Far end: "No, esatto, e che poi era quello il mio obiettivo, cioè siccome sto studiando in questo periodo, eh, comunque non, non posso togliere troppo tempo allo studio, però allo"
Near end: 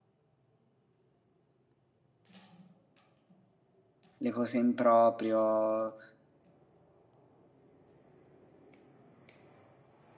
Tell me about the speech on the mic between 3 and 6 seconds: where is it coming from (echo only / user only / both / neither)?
user only